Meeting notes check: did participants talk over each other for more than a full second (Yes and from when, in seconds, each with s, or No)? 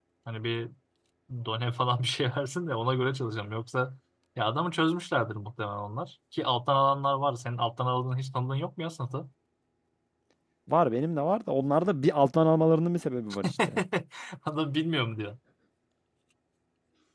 No